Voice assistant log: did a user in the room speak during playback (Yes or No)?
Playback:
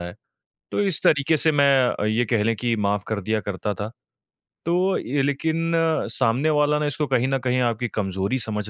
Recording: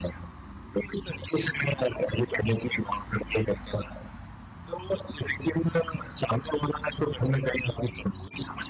No